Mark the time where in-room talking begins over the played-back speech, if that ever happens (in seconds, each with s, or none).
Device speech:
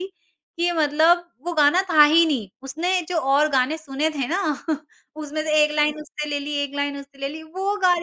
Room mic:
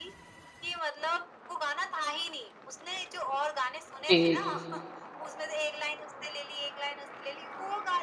4.1 s